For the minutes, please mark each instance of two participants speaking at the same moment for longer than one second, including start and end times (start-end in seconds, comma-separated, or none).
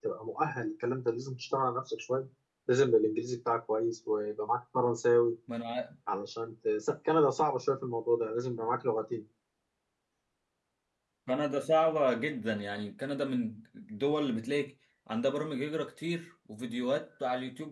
none